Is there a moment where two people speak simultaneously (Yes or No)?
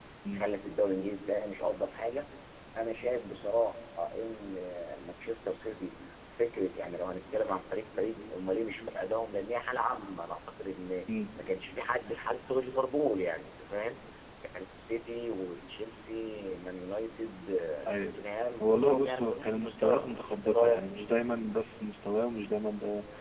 Yes